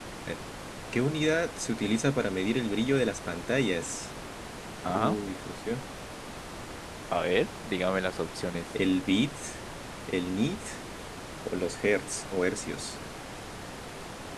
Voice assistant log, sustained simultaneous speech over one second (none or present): none